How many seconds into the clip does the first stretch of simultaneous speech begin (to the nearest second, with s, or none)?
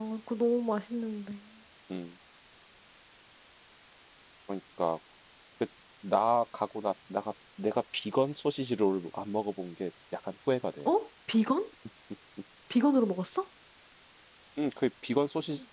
none